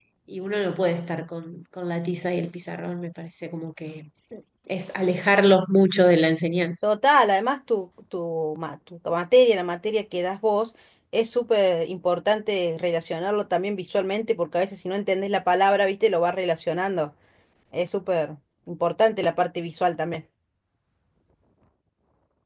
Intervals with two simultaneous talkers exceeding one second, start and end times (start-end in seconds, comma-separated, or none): none